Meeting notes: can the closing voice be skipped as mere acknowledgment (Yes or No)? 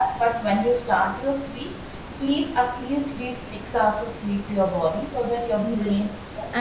No